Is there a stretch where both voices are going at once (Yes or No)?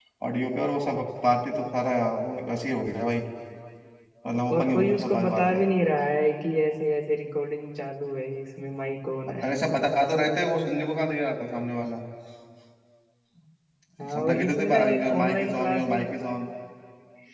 Yes